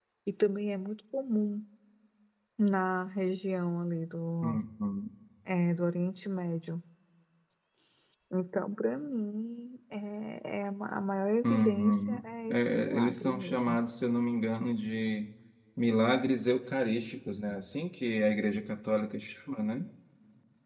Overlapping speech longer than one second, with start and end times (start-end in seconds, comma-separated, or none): 11.4-13.8